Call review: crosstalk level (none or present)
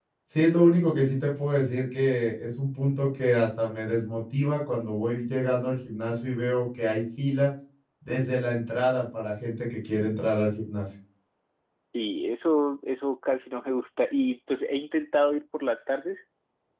none